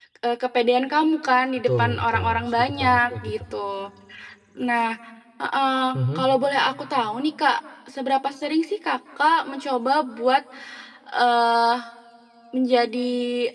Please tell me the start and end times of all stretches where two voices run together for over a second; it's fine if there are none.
1.7-3.3

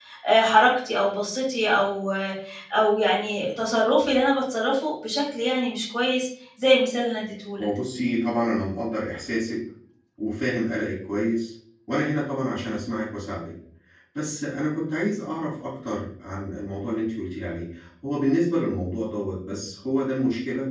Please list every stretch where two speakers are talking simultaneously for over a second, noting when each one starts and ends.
none

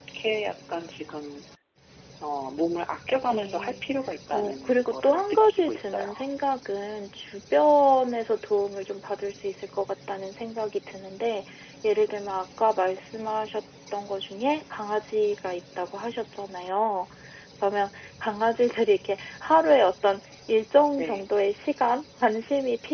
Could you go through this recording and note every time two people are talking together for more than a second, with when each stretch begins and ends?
4.3-6.1

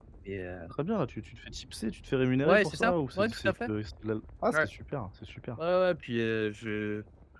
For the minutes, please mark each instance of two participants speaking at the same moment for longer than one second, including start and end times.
2.4-3.7

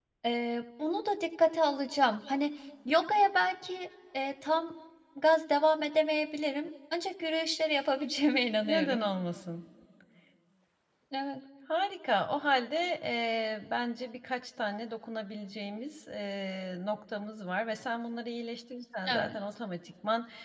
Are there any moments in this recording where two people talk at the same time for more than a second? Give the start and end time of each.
none

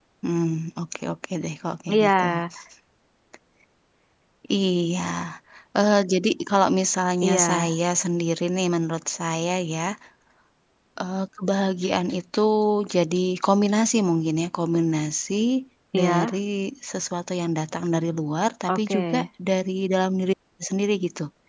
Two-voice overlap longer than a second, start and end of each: none

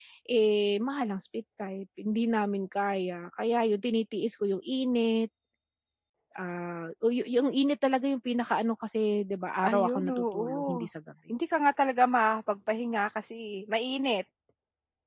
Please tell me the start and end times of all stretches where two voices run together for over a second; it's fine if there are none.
9.7-10.9

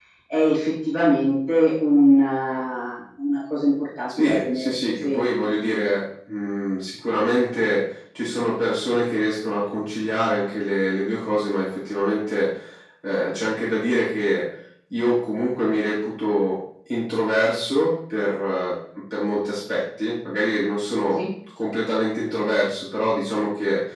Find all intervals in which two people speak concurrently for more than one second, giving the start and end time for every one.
4.2-5.5

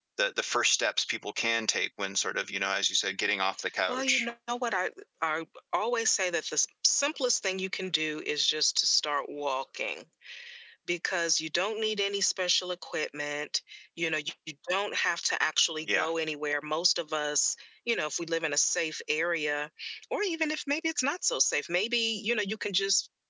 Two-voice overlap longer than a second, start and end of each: none

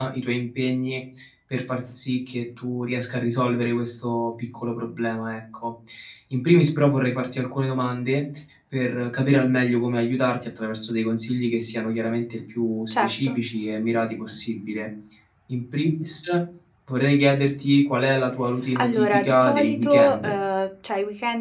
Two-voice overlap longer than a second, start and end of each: 18.8-20.3

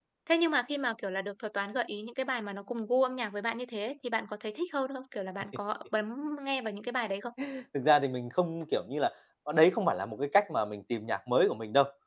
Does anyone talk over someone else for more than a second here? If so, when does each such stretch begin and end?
none

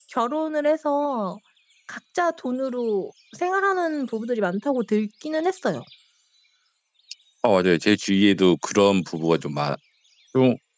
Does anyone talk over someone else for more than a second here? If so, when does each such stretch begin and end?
none

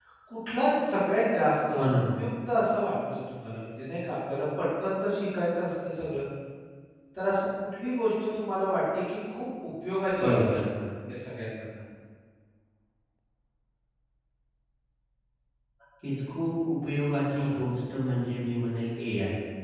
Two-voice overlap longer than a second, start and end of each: none

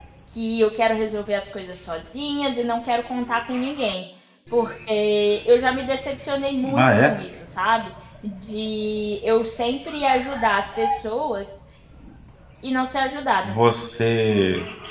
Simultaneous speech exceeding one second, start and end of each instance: none

